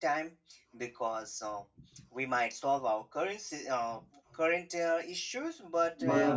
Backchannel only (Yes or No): Yes